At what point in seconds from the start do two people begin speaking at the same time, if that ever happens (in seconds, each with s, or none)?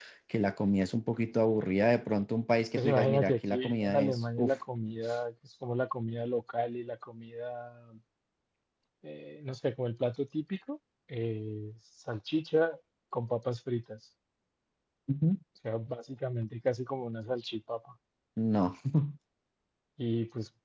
2.8 s